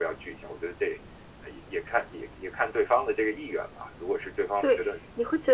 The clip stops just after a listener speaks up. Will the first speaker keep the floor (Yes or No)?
No